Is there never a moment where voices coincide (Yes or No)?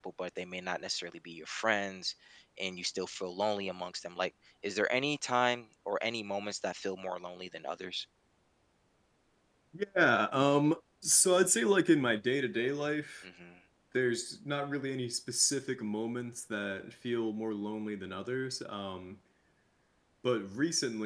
Yes